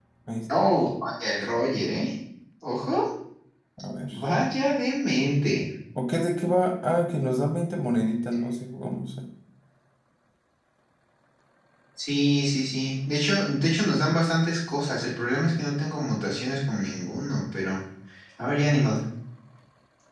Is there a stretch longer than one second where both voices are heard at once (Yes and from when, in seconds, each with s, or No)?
No